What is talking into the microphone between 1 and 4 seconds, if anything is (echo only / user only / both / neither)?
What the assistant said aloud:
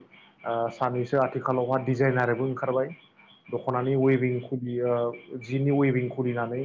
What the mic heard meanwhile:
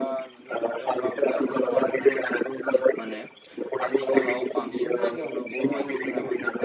both